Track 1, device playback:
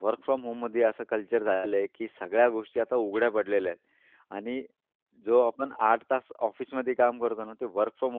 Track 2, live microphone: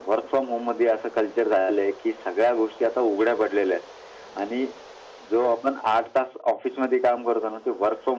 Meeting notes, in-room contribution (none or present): none